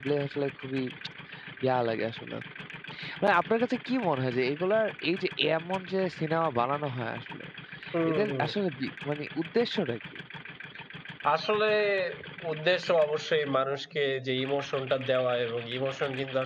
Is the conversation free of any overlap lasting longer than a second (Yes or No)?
Yes